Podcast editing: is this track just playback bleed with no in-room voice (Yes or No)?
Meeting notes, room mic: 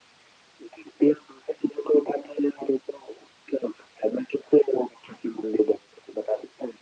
Yes